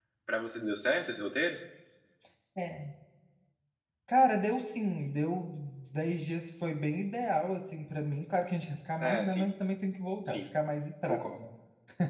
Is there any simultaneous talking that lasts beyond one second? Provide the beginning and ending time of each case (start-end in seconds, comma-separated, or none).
none